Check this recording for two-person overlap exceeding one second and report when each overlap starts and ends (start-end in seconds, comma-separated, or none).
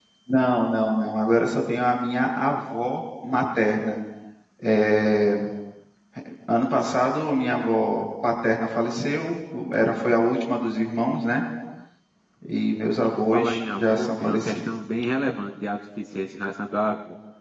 13.1-14.6